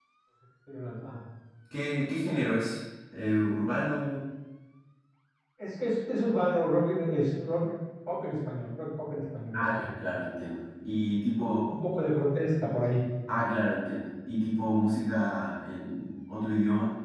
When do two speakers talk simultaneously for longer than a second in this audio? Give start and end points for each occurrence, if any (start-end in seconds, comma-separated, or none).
none